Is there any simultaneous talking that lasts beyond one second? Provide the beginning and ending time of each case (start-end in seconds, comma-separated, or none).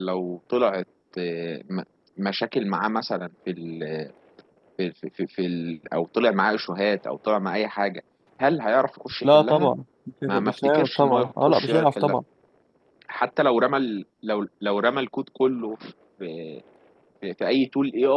10.3-12.2